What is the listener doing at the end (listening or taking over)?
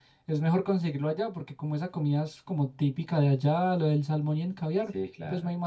listening